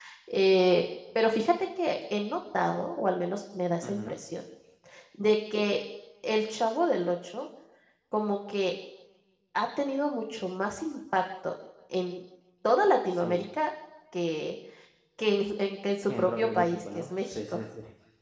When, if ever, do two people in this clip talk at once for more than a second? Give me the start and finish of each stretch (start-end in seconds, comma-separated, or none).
16.1-17.6